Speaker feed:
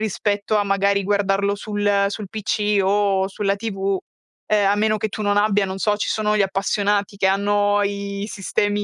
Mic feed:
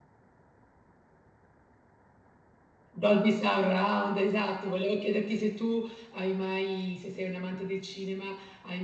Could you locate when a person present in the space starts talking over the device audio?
2.9 s

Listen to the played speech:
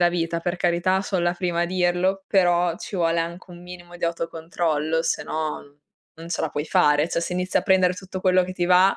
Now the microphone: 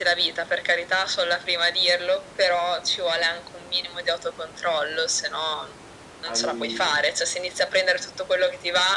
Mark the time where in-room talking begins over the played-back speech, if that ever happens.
6.2 s

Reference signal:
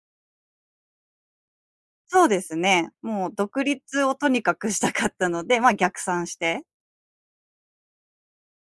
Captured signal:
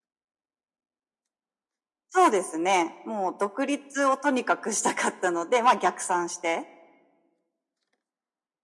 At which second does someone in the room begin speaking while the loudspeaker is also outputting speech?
none

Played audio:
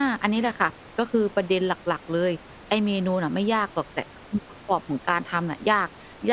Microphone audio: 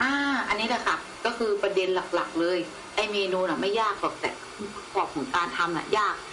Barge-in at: none

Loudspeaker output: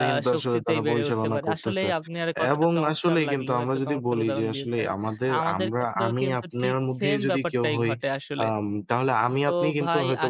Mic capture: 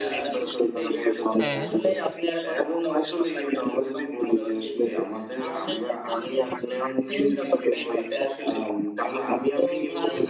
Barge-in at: 1.4 s

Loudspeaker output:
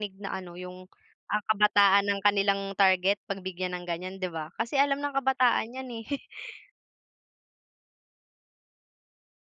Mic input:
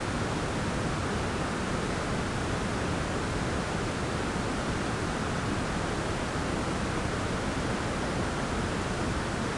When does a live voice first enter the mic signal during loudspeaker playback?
none

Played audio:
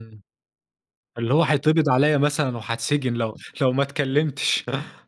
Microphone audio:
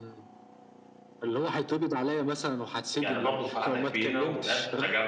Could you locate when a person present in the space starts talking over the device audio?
3.0 s

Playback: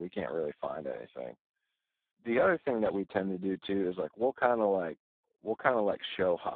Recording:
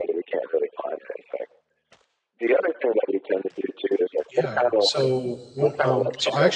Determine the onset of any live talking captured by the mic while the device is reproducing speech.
4.3 s

